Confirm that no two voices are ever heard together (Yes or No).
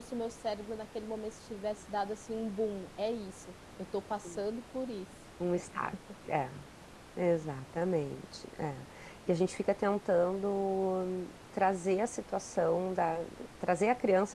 Yes